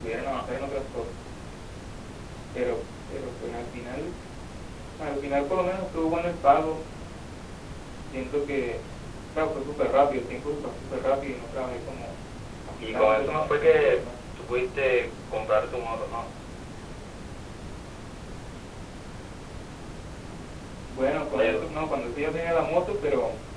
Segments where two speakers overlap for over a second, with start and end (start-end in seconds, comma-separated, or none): 12.8-14.0